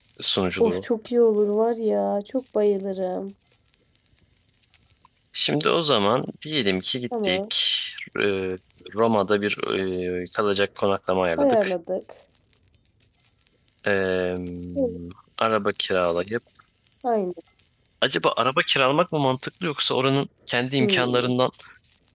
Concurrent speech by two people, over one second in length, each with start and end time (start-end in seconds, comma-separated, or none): none